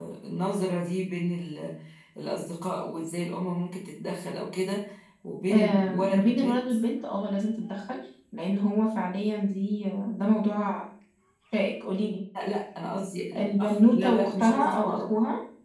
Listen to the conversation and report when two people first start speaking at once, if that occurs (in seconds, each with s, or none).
5.5 s